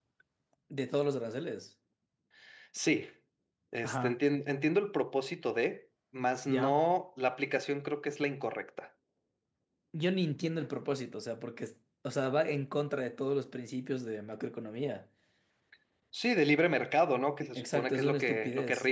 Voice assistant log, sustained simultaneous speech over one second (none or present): present